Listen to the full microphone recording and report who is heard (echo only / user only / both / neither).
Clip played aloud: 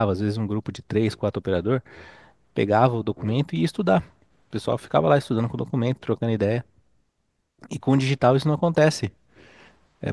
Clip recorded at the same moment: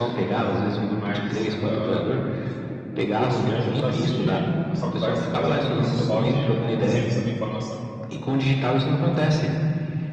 both